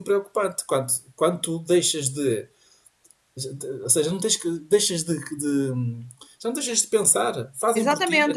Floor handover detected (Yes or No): Yes